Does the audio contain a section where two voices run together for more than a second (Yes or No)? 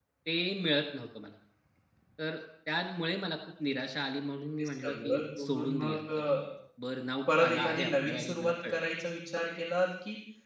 Yes